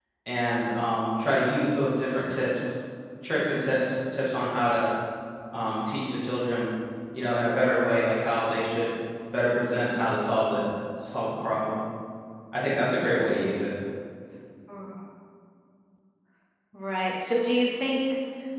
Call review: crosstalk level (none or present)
none